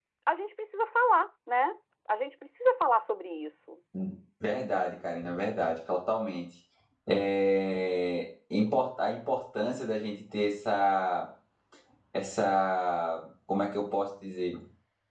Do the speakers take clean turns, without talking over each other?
Yes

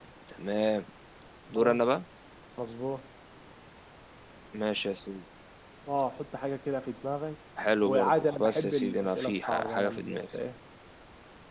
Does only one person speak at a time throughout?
No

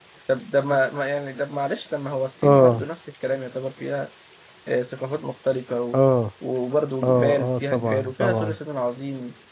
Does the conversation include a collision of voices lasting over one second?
Yes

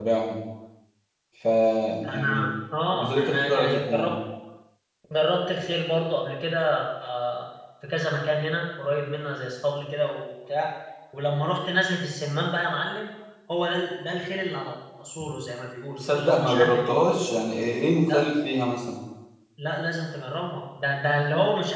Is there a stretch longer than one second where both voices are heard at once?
Yes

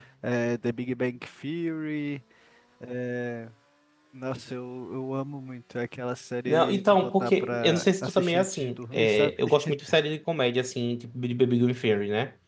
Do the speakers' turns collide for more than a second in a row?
Yes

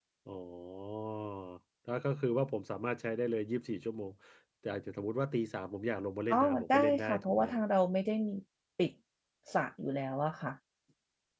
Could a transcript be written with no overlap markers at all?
No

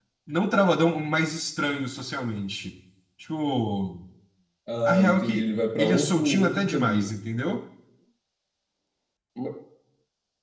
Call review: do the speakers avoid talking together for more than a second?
No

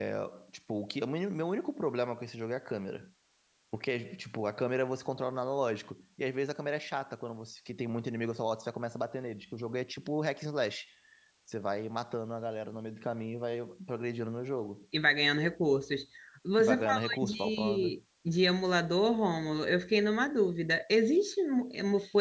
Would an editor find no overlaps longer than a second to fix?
No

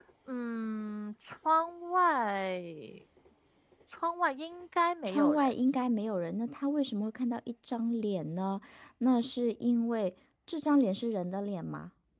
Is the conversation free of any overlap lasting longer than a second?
Yes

